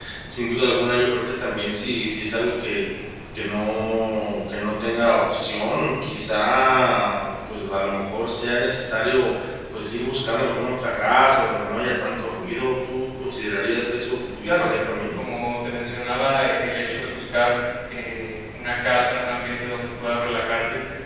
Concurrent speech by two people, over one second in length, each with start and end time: none

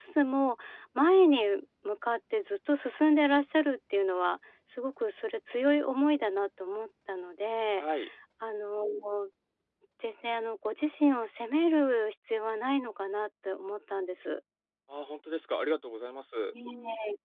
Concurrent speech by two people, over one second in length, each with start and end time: none

